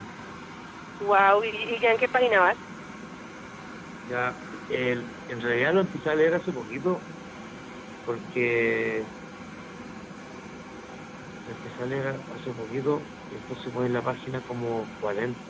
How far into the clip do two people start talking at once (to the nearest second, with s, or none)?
none